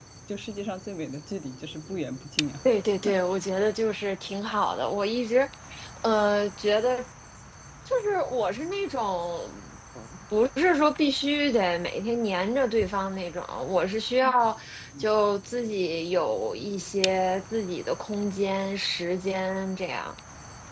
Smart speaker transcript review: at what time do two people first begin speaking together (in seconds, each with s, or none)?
none